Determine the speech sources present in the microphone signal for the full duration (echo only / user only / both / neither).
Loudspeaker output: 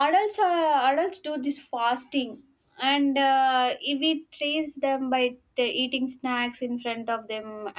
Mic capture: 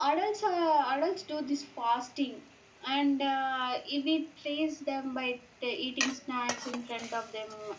echo only